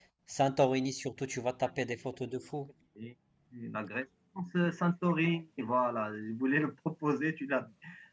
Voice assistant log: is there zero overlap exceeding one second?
Yes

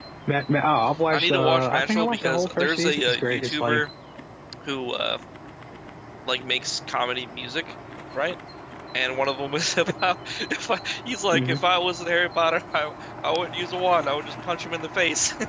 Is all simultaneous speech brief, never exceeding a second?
No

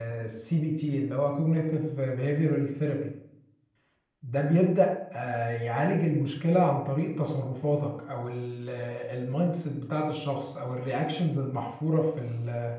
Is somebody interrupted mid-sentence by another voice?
No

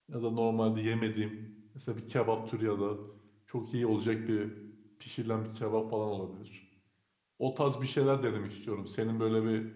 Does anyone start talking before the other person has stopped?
No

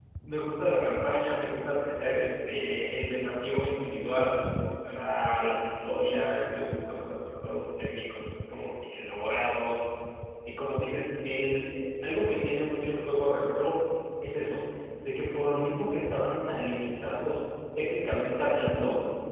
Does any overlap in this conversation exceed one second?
No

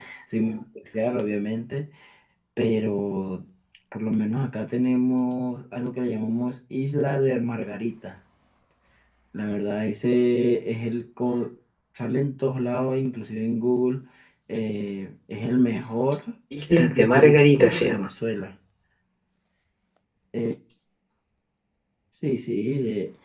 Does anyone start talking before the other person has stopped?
Yes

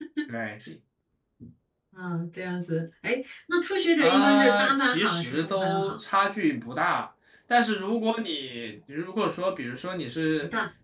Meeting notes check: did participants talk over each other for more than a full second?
Yes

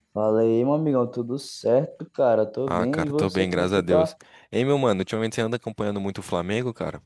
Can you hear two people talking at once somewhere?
Yes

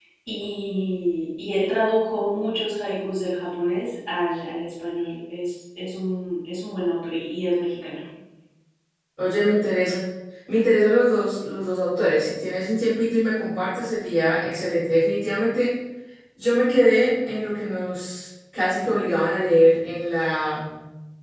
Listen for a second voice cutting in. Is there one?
No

